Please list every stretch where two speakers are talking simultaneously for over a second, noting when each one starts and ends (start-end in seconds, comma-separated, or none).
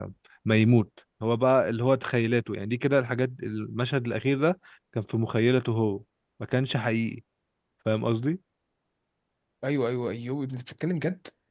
none